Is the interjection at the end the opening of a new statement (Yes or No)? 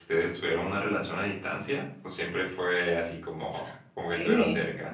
Yes